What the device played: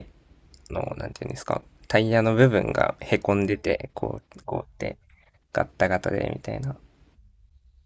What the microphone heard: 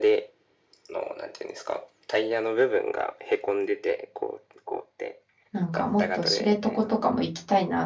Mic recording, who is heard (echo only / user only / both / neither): both